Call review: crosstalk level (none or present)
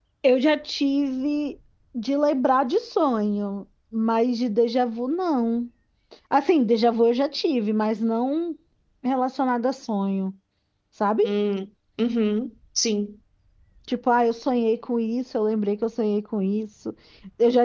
none